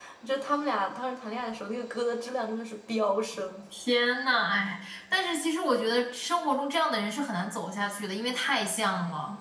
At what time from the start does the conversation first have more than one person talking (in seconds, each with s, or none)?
none